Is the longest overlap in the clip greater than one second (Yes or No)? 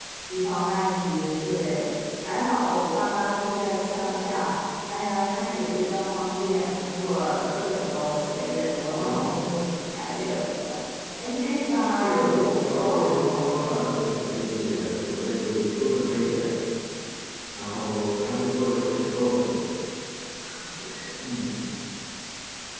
Yes